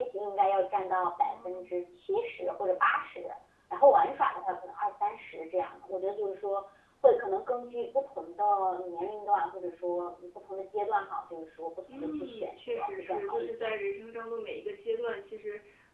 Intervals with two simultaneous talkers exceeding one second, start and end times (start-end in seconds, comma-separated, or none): 11.9-13.7